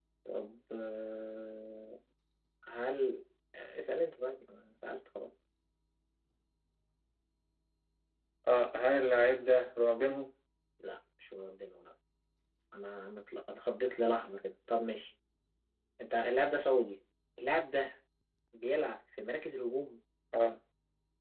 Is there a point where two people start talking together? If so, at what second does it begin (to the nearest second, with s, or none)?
none